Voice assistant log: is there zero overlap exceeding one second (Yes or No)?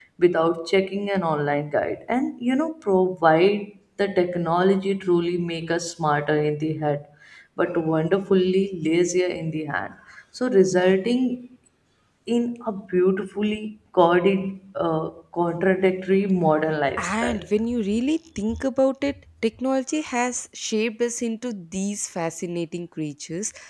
Yes